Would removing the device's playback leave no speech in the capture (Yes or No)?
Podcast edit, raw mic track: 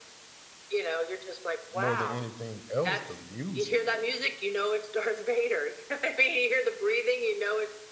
No